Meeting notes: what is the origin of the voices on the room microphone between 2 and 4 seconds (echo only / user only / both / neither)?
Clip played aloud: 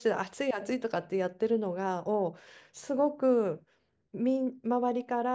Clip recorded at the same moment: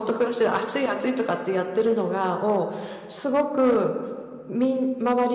echo only